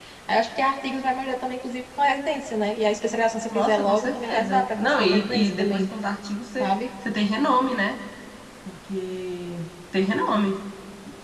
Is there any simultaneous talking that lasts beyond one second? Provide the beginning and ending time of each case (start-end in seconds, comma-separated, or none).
3.5-5.8